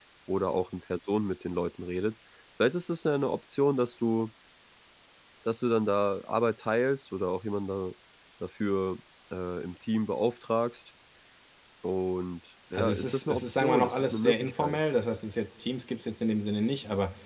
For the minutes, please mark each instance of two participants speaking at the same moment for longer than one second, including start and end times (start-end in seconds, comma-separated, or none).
12.7-14.8